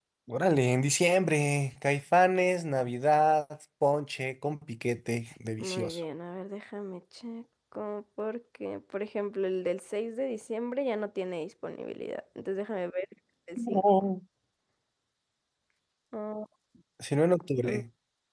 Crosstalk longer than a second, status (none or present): none